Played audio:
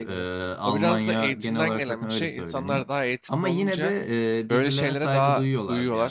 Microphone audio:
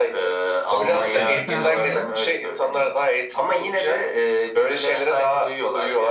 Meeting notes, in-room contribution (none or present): present